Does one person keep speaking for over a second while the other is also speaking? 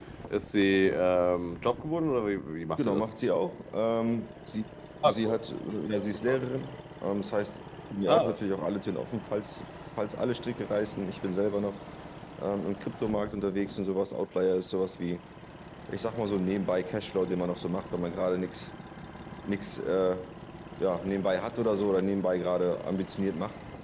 No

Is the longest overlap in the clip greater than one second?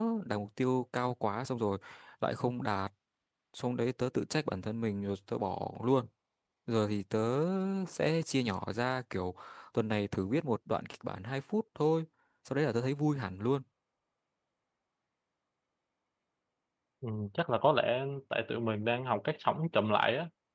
No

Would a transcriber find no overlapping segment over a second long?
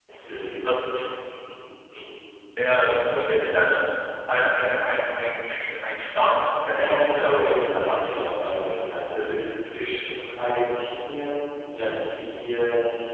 No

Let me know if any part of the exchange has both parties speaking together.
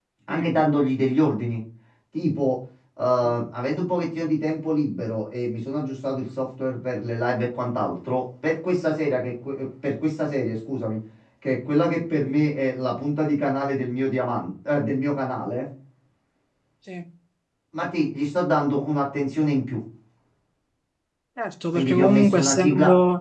Yes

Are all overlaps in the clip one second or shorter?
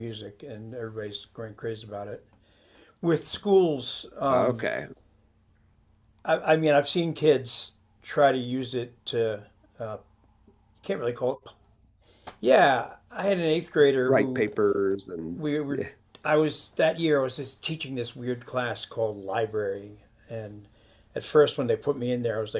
Yes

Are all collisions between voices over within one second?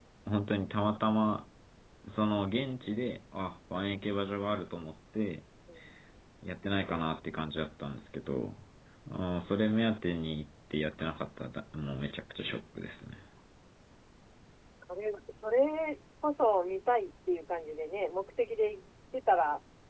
Yes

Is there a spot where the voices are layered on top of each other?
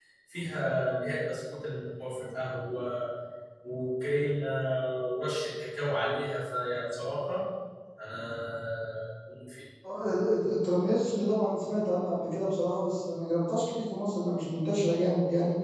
No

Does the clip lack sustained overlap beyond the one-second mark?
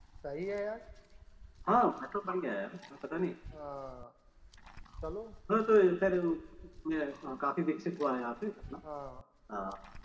Yes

